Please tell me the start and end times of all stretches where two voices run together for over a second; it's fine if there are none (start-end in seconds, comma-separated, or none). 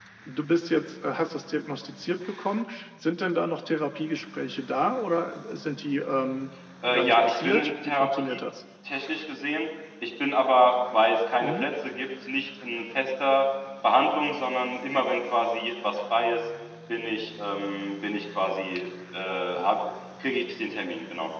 6.9-8.4